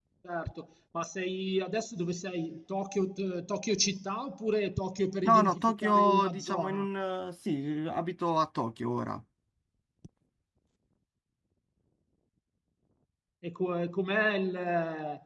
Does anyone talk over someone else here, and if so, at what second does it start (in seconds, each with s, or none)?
5.2 s